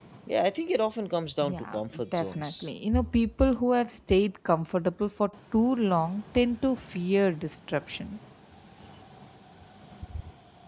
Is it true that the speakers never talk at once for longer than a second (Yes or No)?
No